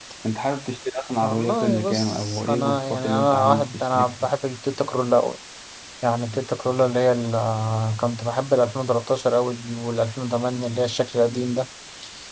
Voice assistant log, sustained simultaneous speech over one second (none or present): present